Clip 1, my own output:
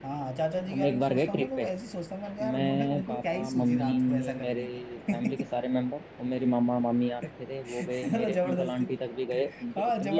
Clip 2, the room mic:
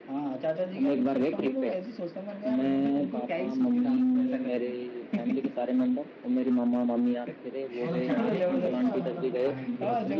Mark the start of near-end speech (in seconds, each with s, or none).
7.8 s